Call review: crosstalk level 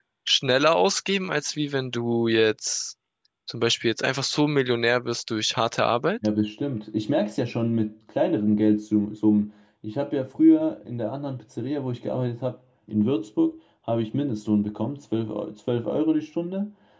none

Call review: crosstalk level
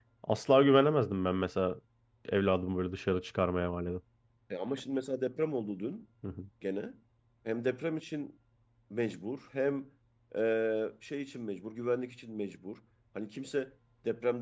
none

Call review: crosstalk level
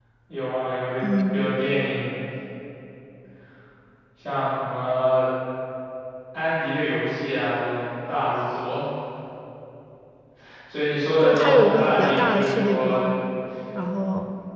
present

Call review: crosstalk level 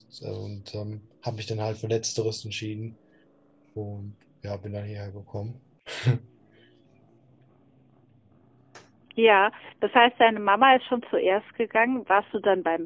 none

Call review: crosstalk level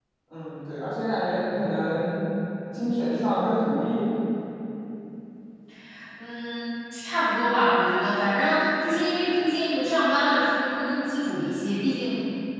none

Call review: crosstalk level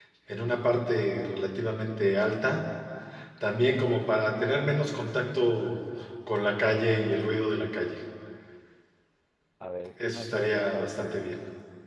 present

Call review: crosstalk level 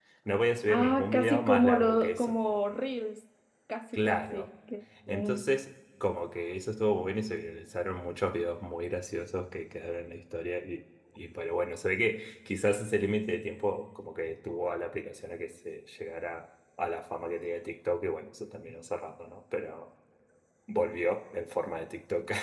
present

